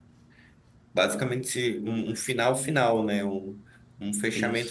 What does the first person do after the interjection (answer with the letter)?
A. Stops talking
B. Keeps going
B